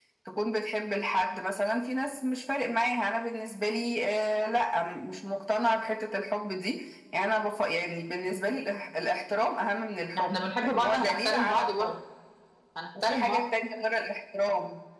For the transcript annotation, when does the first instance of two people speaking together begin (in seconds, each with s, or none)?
10.2 s